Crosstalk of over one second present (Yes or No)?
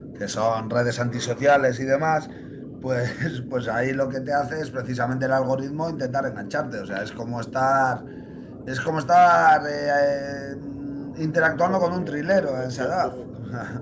Yes